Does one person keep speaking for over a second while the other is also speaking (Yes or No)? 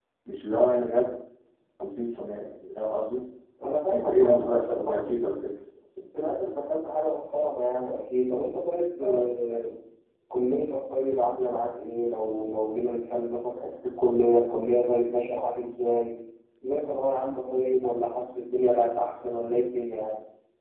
Yes